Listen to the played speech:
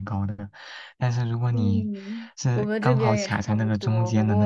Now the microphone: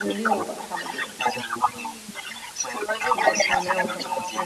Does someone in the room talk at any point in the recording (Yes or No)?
Yes